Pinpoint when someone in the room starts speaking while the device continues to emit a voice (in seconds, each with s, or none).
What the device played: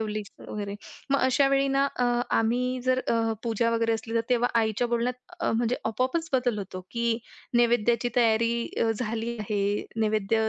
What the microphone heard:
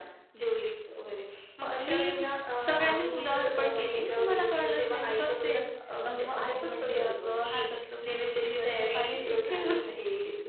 1.9 s